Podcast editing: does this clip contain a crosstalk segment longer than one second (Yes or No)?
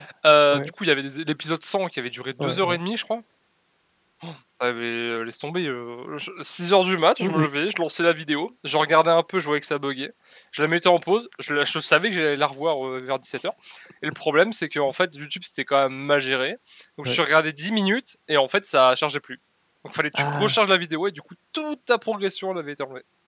No